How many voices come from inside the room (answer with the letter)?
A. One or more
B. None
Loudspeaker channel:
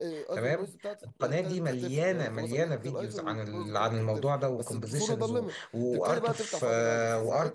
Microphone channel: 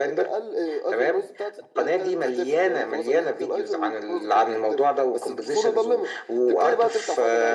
B